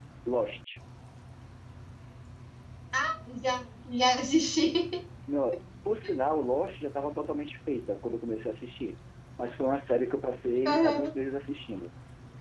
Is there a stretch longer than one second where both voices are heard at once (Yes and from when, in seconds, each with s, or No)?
No